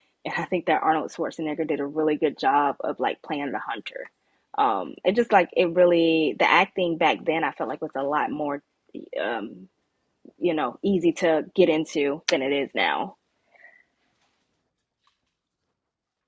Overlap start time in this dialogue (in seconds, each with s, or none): none